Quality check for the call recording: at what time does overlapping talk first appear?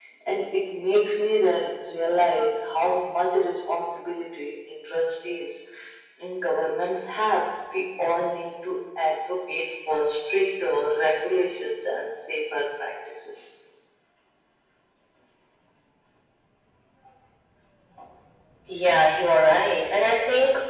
none

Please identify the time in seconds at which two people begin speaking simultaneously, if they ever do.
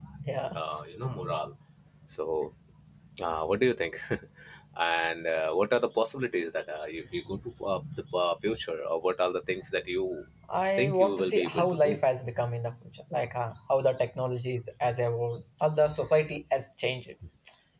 10.8 s

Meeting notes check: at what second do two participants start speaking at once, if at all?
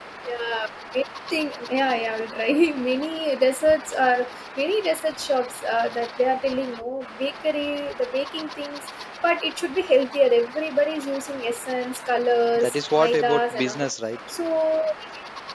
12.6 s

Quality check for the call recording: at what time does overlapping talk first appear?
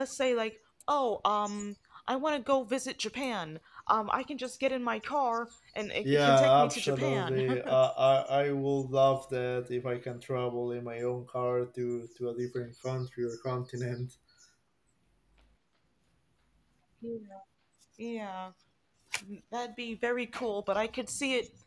6.0 s

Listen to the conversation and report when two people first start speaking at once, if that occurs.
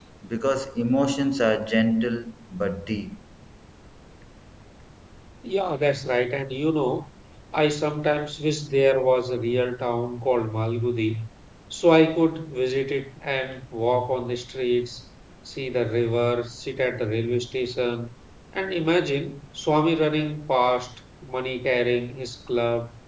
none

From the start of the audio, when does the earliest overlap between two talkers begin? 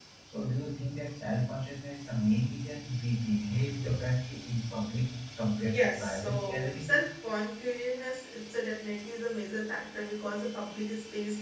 5.7 s

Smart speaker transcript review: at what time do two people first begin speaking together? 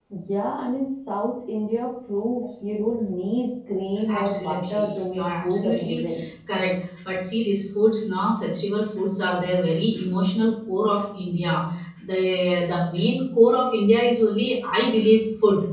4.1 s

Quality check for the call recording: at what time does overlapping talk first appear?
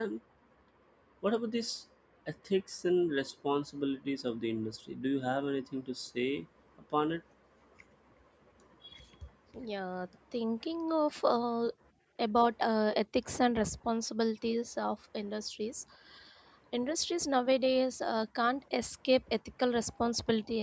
none

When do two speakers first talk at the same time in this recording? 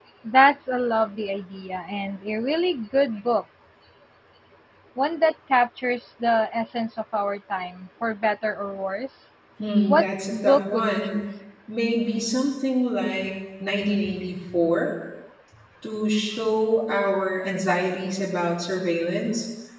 9.9 s

